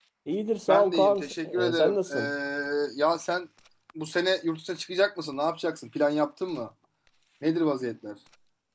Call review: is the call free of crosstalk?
No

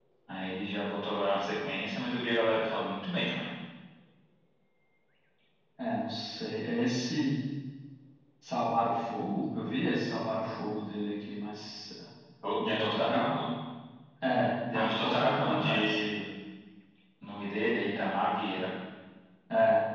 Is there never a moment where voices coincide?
No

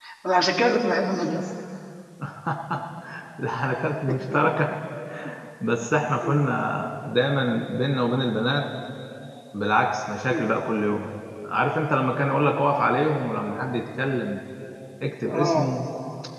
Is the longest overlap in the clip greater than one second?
No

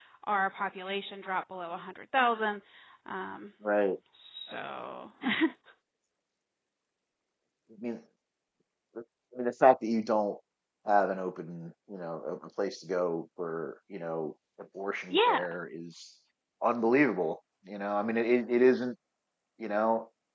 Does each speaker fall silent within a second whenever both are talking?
Yes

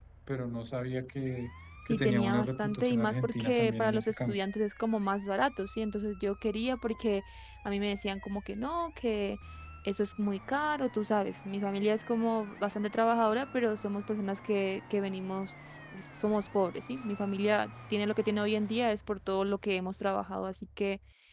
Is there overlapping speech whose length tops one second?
Yes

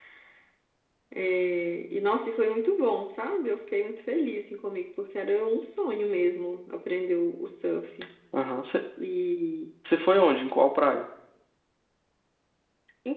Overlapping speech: No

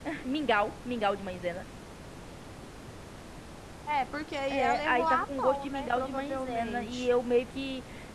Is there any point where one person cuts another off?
Yes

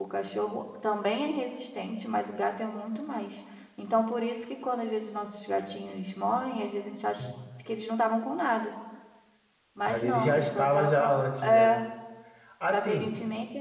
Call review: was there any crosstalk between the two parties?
Yes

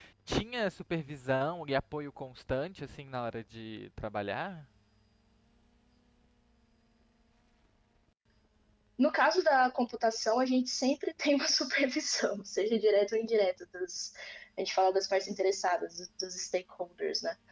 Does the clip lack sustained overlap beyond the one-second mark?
Yes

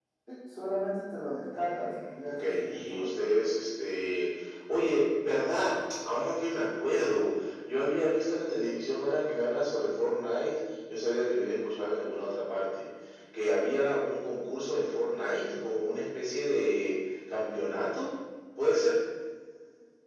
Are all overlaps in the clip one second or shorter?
No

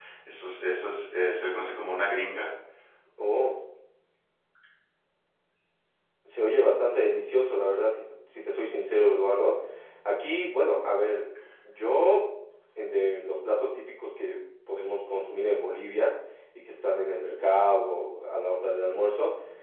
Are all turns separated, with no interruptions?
Yes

